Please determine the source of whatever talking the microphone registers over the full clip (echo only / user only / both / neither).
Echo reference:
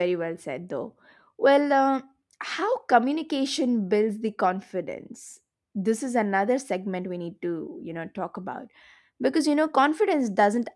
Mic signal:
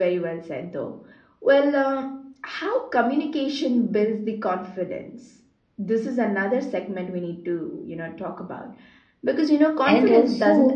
both